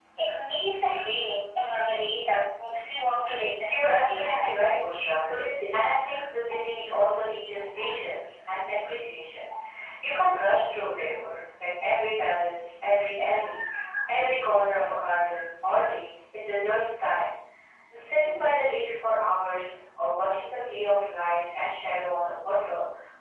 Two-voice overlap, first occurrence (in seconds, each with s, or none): 3.6 s